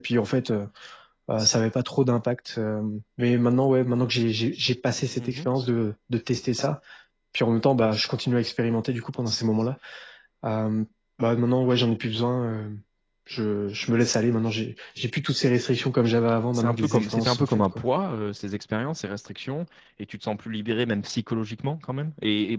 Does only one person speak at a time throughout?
No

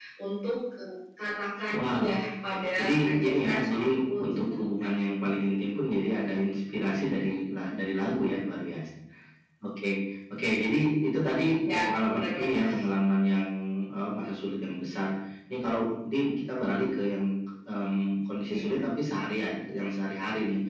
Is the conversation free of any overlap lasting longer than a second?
No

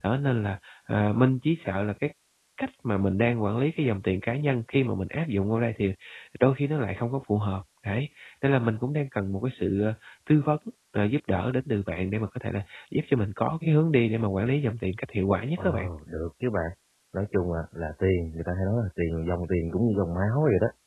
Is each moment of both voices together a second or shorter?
Yes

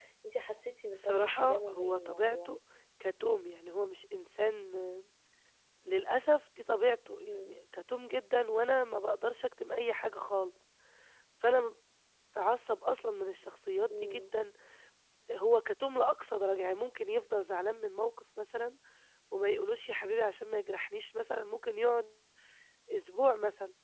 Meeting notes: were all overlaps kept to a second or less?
No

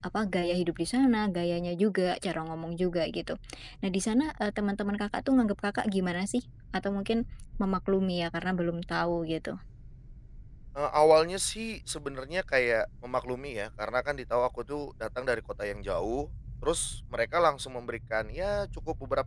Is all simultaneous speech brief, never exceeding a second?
Yes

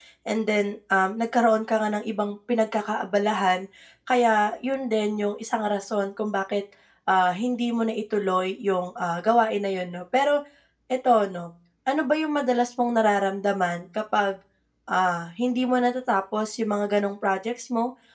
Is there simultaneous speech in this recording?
No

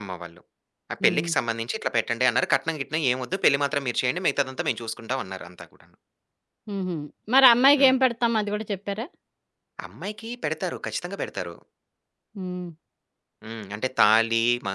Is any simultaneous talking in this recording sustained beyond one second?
No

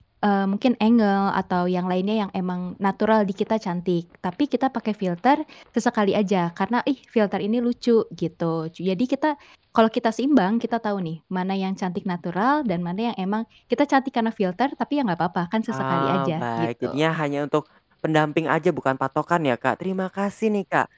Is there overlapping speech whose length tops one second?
Yes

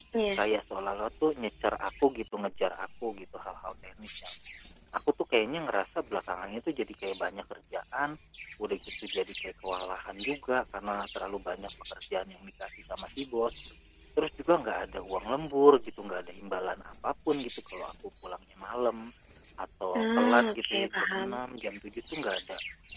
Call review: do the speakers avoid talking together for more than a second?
No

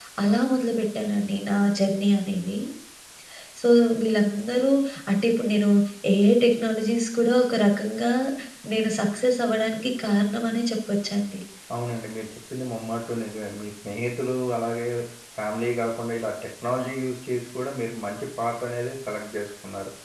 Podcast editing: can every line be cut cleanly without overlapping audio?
Yes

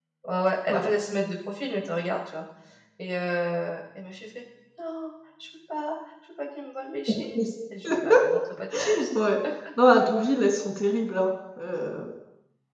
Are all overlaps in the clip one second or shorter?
Yes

